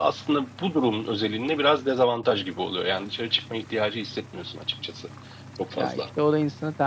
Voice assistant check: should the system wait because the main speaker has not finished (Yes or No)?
No